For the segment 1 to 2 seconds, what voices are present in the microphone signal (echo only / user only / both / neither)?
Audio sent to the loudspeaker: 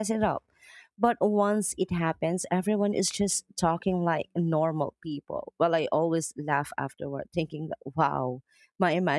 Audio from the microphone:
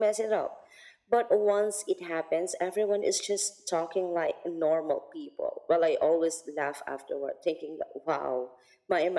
echo only